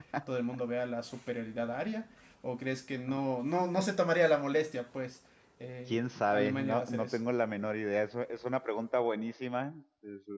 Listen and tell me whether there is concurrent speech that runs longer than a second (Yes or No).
Yes